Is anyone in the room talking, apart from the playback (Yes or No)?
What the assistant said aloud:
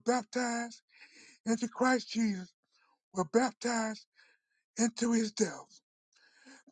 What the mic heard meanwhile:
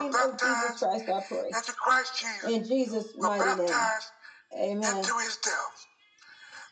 Yes